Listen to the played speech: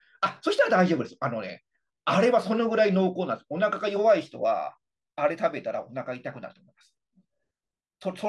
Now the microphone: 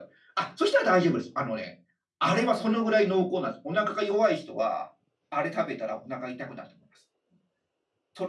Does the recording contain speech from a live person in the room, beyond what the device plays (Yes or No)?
No